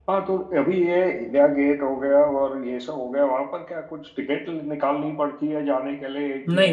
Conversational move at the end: listening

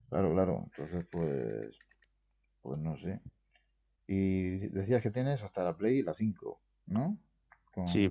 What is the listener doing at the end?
taking over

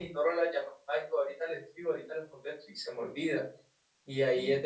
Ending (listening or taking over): listening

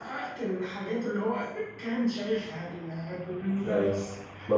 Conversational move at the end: taking over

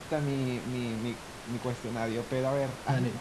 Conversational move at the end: taking over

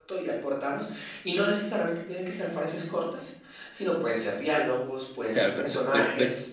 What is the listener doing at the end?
taking over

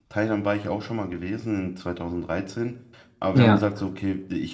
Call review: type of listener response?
listening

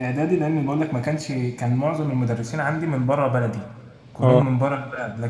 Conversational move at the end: listening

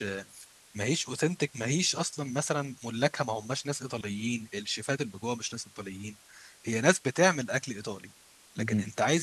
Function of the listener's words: listening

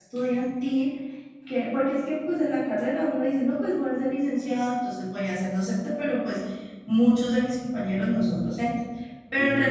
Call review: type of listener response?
listening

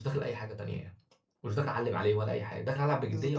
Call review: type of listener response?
taking over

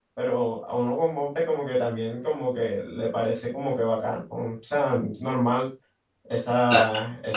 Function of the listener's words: taking over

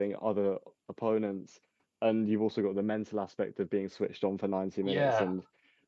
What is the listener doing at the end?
listening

